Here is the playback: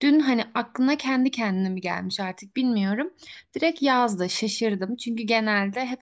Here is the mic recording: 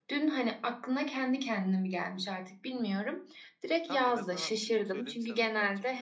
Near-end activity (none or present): present